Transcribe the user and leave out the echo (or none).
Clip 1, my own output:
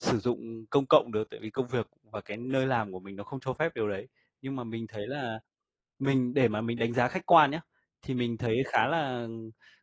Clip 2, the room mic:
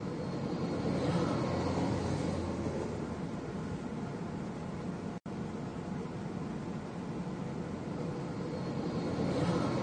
none